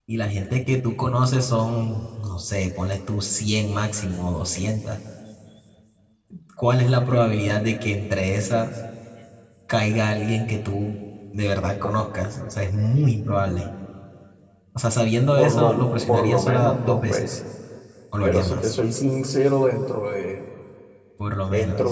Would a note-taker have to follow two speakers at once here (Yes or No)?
Yes